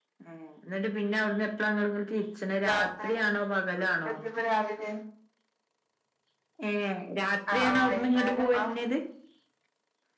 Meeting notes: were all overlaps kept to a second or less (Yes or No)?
No